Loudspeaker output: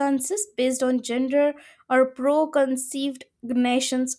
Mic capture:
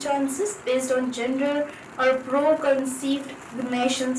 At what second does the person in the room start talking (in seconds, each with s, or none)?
none